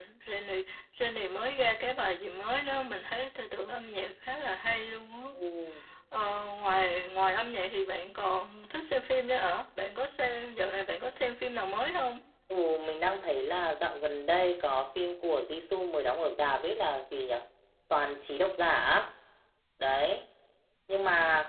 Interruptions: none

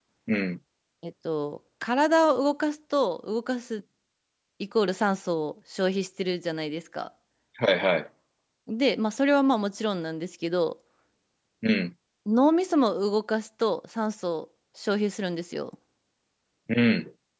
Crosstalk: none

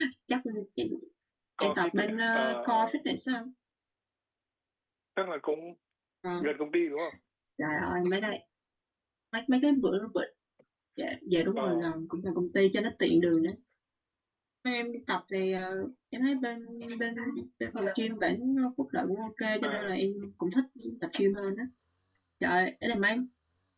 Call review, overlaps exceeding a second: present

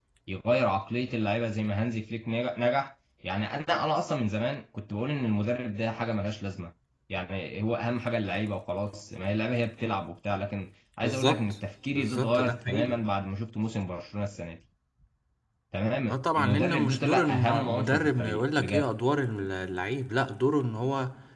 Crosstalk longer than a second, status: present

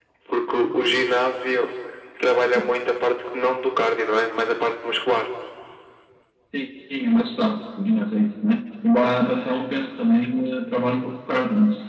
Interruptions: none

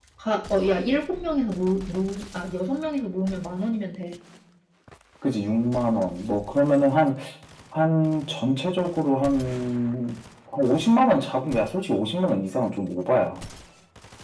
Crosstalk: none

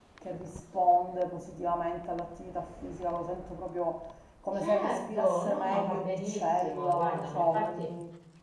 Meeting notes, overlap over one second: present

